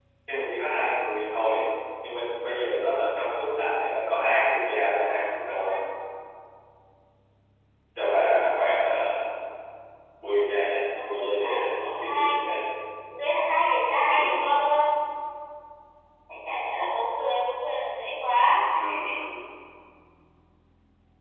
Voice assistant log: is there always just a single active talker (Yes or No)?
No